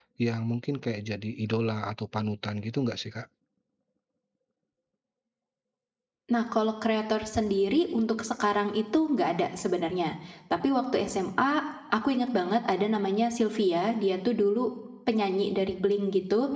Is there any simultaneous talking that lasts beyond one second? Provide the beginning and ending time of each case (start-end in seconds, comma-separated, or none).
none